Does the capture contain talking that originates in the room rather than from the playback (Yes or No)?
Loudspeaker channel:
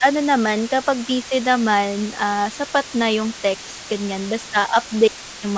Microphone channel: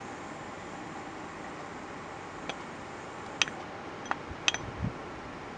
No